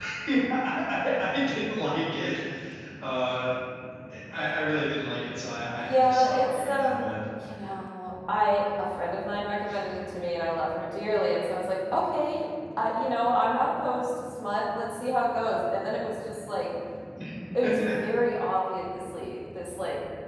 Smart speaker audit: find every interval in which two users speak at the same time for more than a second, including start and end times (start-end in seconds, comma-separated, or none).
5.8-7.1